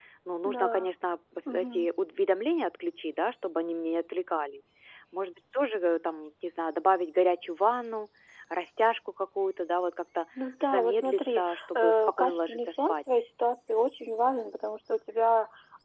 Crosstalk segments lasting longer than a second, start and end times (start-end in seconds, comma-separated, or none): 10.6-13.0